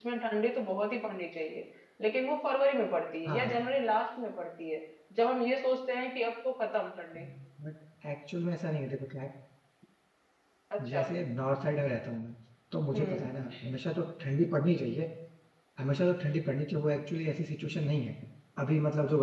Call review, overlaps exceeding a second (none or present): none